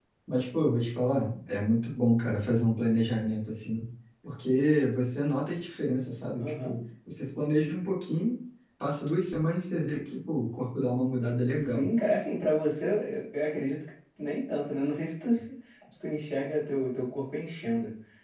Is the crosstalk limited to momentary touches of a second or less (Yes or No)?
Yes